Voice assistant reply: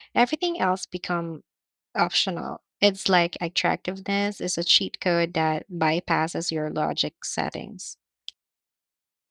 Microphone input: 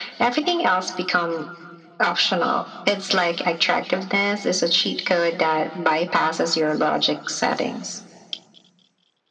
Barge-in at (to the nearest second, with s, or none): none